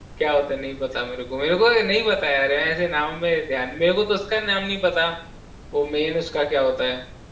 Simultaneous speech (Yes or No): No